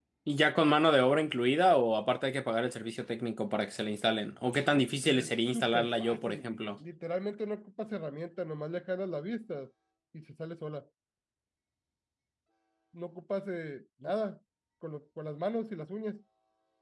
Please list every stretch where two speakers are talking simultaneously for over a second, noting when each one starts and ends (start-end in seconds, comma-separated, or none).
5.0-6.6